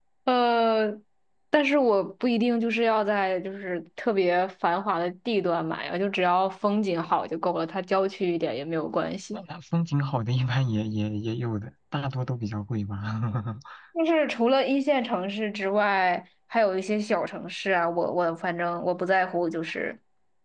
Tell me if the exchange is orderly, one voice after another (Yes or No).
Yes